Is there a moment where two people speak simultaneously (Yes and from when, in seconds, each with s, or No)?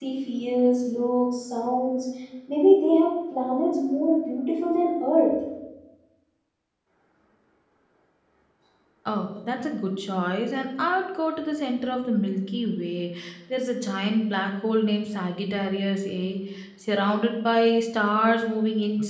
No